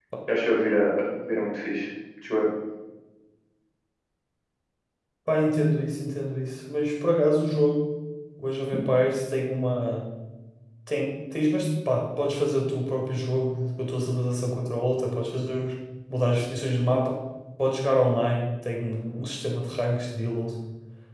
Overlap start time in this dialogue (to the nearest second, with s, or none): none